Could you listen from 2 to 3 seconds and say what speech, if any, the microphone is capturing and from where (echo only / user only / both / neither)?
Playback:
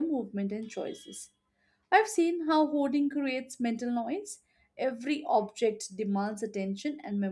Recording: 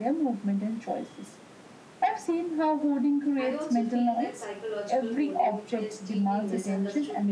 echo only